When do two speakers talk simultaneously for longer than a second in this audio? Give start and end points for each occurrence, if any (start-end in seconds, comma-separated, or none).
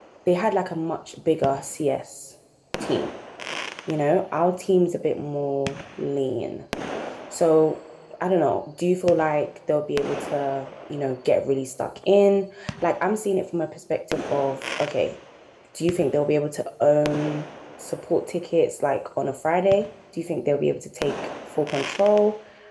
none